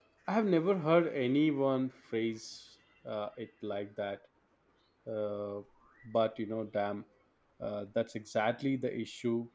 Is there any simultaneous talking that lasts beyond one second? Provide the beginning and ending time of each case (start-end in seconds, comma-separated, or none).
none